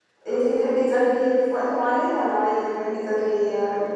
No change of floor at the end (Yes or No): No